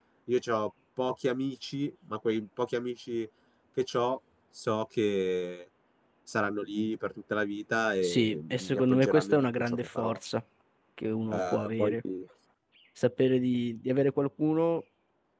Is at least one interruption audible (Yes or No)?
Yes